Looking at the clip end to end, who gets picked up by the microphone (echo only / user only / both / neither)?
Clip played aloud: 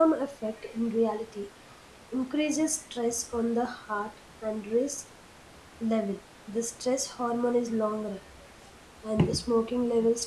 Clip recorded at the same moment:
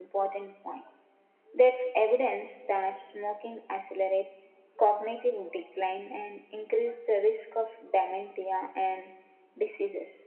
user only